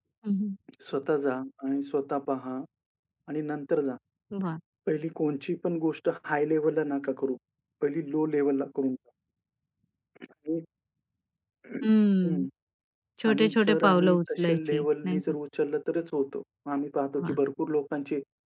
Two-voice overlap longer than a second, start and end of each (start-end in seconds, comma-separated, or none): 13.3-15.2